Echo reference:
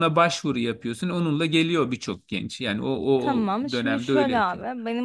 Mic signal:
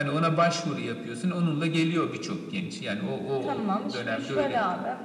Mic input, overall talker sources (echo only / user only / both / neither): echo only